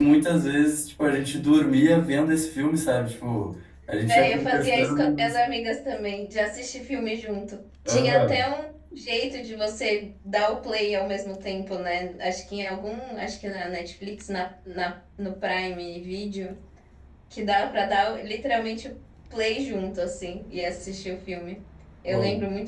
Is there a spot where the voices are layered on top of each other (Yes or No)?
Yes